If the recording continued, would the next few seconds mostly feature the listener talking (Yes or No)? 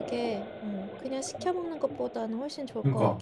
Yes